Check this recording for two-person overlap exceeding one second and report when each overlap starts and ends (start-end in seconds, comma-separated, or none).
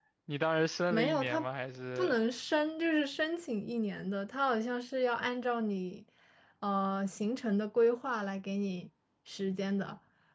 none